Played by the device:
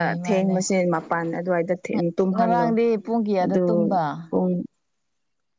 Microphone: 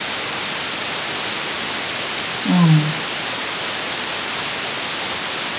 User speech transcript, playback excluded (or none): ꯑꯥ